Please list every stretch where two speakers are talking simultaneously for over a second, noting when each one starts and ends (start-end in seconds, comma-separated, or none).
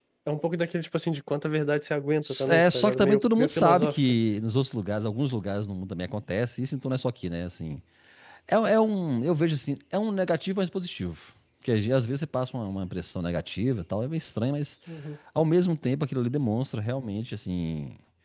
2.5-4.0